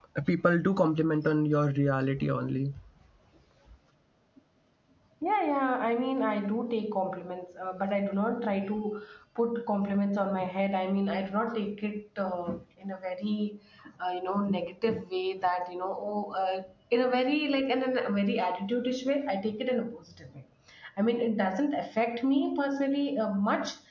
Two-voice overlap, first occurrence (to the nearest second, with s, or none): none